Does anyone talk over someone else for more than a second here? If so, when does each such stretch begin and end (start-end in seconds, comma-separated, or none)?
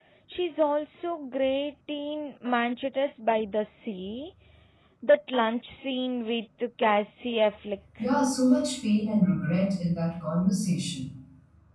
none